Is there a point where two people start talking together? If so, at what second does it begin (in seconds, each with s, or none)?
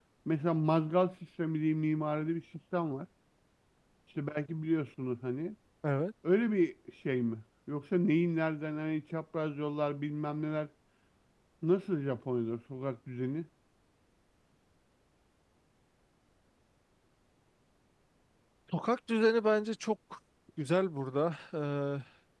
none